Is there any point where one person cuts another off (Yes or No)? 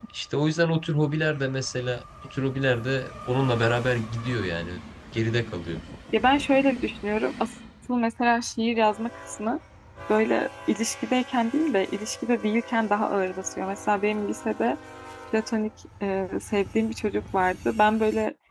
No